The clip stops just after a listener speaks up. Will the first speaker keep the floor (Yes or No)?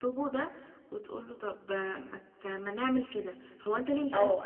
No